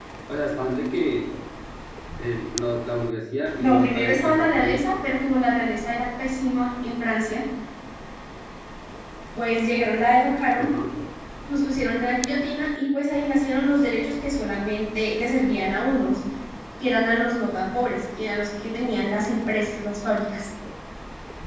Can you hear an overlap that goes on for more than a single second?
Yes, from 3.6 s

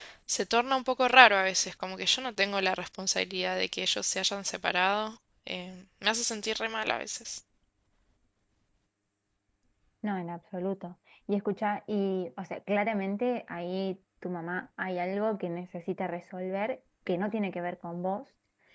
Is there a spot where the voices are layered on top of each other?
No

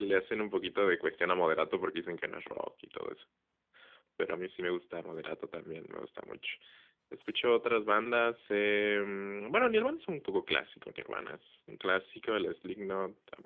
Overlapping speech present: No

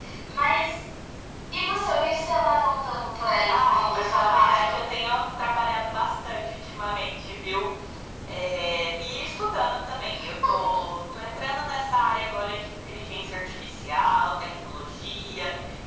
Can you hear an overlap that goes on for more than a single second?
Yes, from 3.5 s

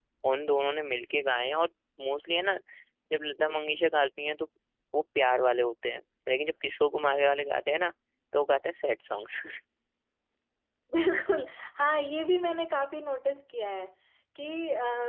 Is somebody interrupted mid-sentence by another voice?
No

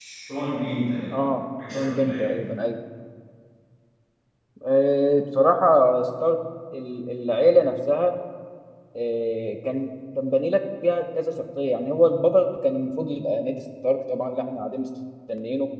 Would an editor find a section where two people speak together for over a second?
No

